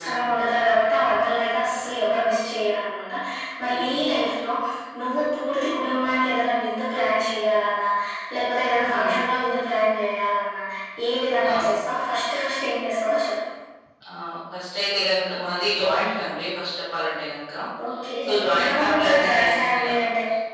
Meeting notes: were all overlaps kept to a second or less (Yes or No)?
No